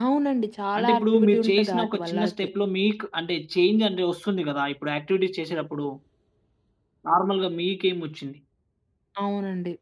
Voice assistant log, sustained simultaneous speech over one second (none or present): present